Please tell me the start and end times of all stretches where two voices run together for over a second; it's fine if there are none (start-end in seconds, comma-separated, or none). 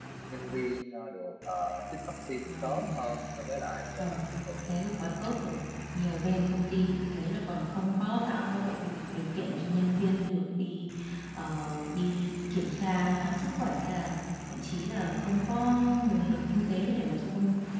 none